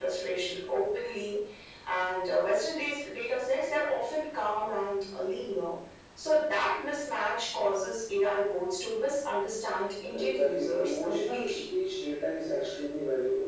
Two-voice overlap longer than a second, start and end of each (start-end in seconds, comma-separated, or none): 10.1-11.6